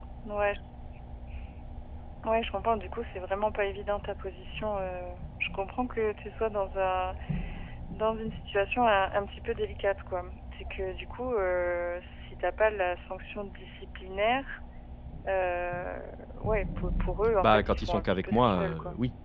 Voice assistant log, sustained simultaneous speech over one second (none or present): present